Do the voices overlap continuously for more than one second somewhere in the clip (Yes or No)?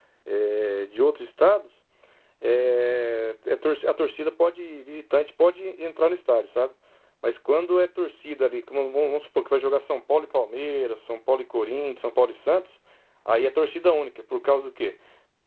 No